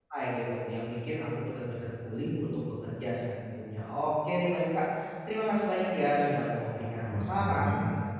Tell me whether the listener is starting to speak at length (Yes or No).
No